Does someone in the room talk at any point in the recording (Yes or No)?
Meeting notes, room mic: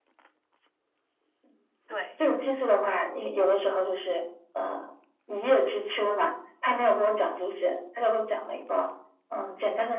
Yes